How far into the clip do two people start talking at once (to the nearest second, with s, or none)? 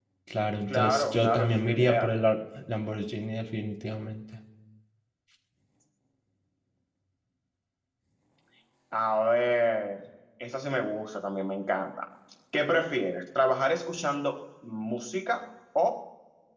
1 s